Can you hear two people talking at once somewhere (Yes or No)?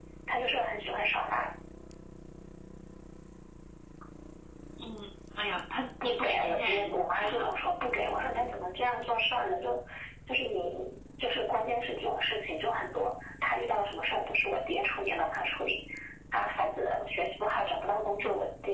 Yes